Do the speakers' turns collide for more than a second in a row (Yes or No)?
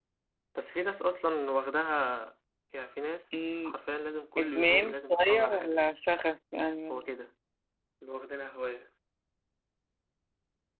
Yes